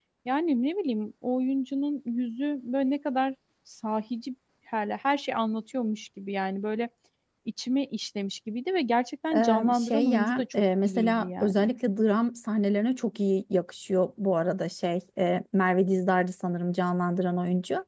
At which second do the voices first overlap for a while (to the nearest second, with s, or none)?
9 s